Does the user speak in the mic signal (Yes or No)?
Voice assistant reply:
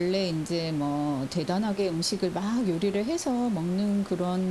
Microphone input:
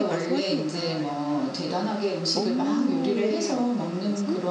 Yes